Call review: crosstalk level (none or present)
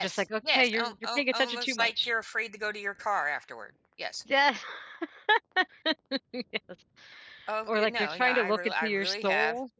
present